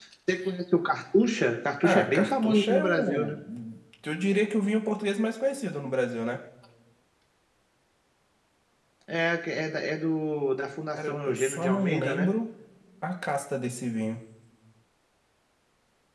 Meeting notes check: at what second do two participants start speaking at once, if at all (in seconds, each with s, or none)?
1.8 s